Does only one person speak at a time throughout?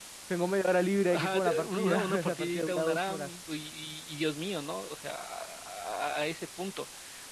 No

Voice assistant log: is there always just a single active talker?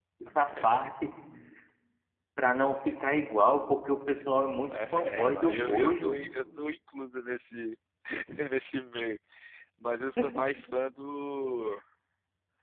No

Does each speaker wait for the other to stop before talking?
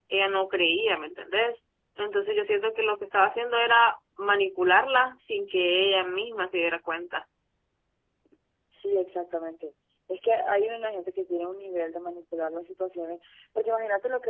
Yes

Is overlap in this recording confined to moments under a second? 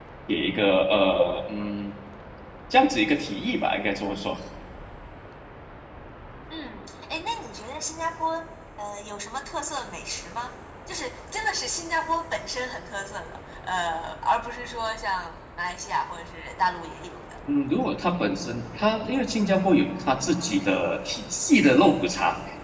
Yes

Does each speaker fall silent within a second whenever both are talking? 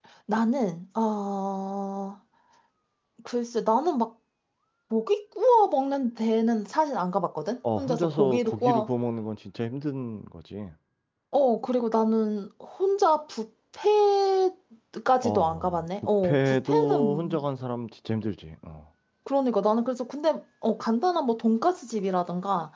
No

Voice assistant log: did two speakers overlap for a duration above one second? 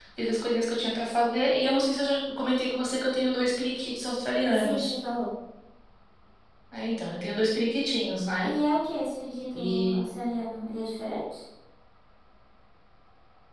No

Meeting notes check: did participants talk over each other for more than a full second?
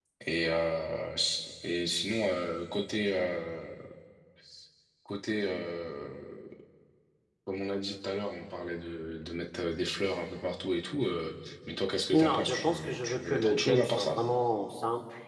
Yes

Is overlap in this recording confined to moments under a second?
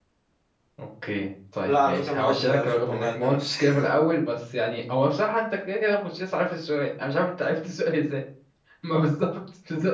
No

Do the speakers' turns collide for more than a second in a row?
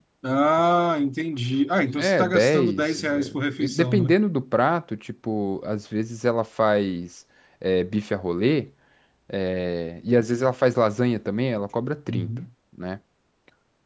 Yes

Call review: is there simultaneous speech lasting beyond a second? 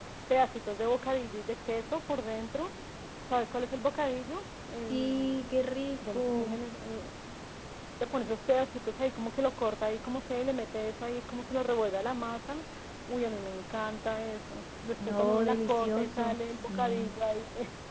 Yes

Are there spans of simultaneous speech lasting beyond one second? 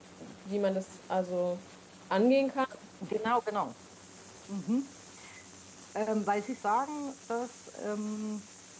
No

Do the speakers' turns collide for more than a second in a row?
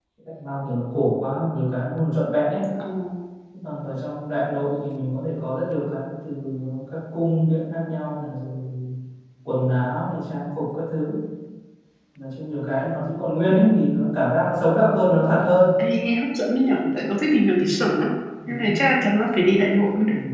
No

